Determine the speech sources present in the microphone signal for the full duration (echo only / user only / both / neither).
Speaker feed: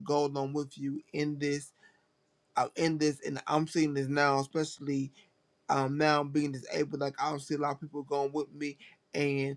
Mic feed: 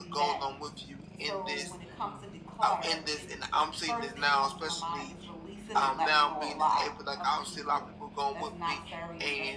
both